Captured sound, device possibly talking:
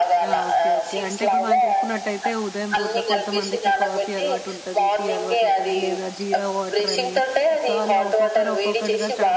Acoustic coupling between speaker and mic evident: Yes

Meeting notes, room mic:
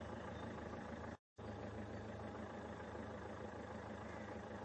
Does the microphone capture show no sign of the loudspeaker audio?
Yes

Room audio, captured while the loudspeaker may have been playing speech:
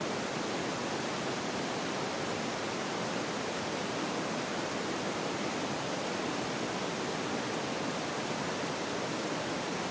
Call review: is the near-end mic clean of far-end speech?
Yes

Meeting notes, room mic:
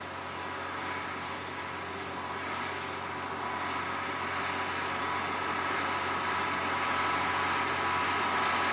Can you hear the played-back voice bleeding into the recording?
No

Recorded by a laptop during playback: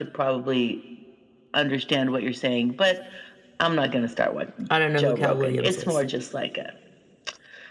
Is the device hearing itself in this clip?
Yes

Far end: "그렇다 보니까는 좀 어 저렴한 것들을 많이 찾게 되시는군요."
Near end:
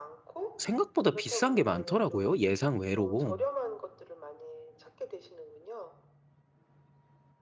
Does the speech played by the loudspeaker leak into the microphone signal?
Yes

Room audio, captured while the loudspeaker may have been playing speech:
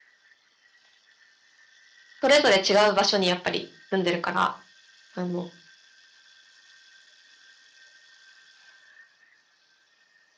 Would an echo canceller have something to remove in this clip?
No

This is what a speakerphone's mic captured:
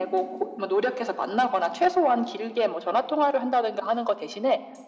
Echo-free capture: No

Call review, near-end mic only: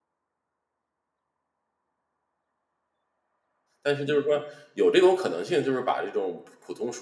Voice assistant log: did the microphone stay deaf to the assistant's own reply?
Yes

